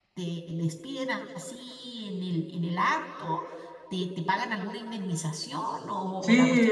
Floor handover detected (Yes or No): Yes